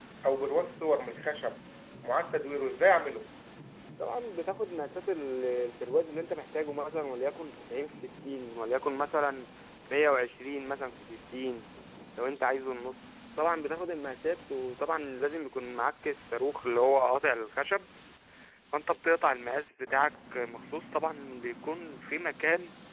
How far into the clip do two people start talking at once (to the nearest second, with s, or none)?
none